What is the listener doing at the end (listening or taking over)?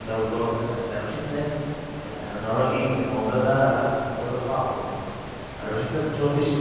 listening